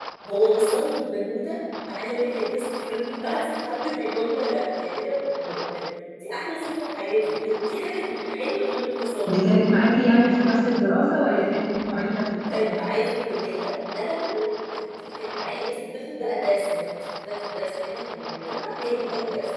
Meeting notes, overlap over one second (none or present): none